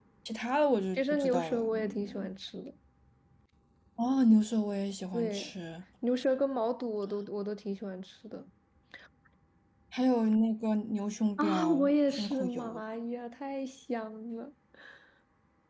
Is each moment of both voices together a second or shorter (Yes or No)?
No